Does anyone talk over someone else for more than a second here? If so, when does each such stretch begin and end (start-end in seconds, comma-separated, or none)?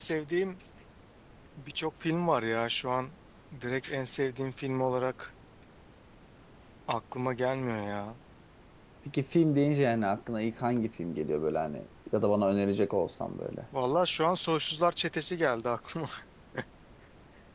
none